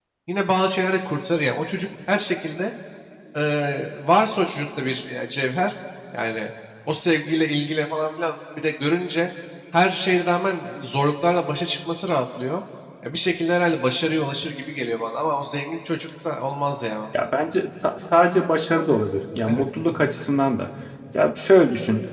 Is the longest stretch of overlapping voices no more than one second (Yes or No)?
Yes